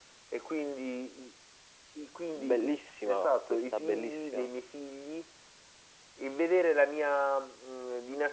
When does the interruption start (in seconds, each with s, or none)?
2.4 s